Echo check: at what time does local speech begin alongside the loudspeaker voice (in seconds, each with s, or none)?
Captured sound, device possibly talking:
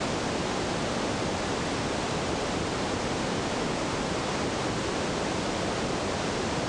none